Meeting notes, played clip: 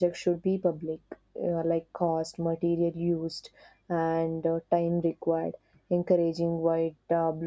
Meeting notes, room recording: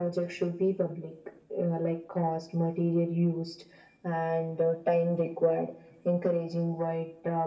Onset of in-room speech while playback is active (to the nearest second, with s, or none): none